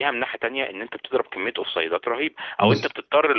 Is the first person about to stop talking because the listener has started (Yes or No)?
No